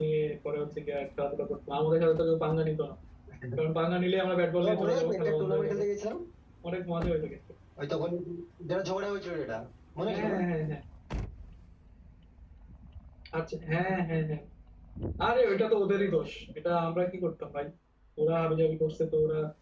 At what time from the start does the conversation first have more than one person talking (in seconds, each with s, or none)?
4.6 s